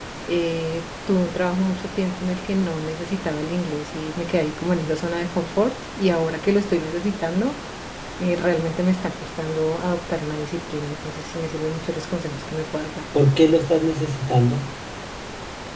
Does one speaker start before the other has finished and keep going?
No

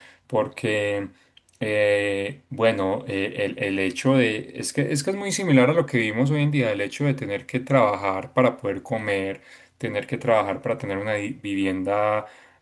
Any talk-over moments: No

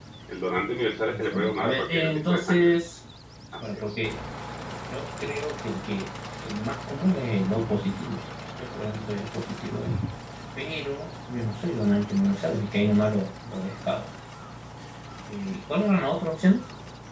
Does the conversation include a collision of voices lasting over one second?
Yes, from 1.1 s

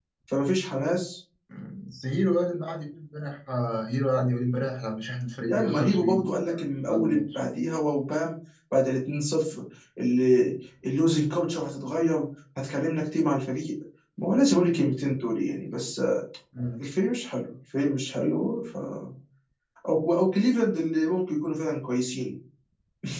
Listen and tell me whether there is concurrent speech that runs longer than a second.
Yes, from 5.5 s

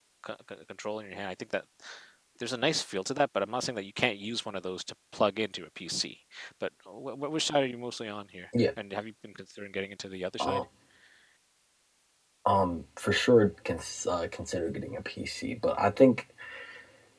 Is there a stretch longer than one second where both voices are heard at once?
No

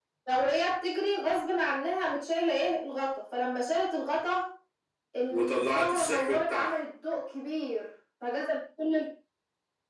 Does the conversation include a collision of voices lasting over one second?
Yes, from 5.3 s

